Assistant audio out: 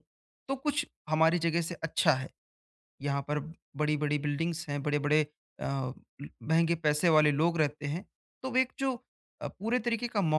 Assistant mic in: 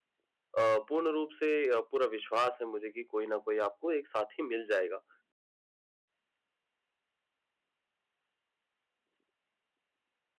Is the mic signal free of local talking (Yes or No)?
No